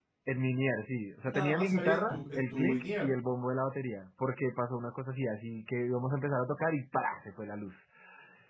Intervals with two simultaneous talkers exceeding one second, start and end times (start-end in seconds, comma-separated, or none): 1.3-3.1